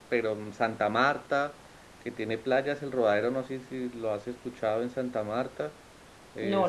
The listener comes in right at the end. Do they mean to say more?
No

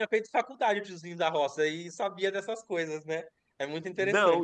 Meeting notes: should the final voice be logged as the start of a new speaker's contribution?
Yes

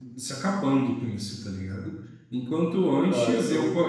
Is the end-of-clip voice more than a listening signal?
No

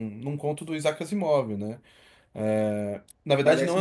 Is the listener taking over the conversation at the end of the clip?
No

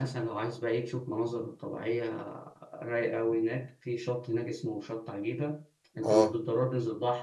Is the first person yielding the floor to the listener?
No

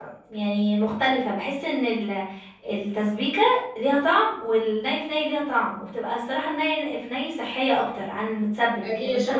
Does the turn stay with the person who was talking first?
No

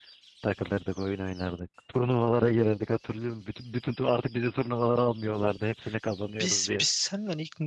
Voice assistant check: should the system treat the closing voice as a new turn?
Yes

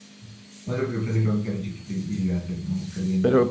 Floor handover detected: Yes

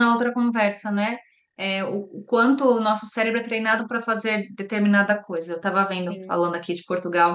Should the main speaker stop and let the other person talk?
No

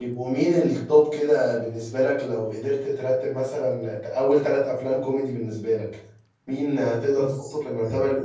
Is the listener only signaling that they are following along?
Yes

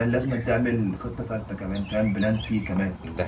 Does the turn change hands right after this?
No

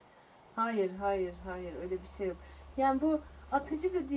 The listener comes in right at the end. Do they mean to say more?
No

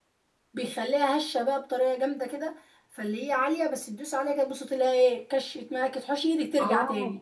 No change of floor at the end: No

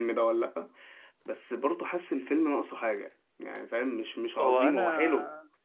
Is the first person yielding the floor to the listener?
Yes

